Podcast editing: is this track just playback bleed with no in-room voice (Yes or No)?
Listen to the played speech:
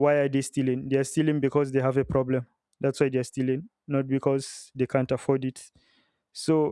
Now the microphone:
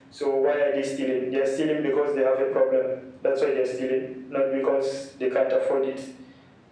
Yes